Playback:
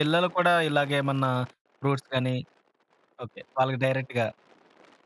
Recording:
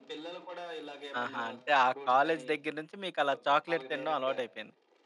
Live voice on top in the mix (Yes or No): Yes